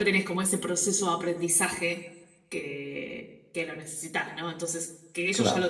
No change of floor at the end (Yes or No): Yes